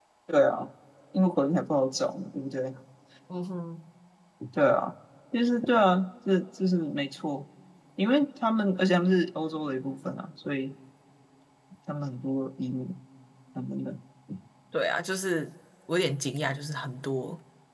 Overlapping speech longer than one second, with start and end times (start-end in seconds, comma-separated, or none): none